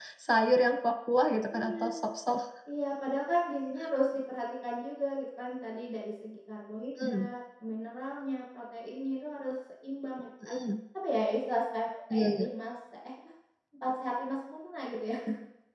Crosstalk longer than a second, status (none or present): none